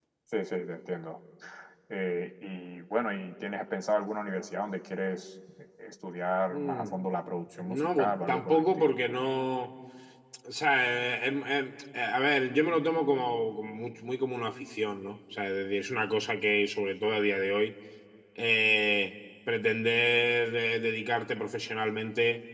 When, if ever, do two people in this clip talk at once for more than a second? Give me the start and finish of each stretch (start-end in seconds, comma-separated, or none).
7.6-8.9